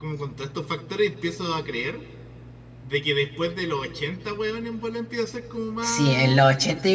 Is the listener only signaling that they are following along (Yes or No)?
No